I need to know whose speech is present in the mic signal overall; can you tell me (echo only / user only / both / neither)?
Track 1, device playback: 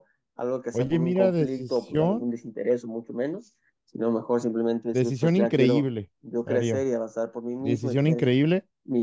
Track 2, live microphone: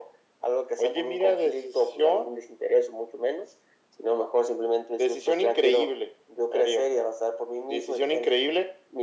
echo only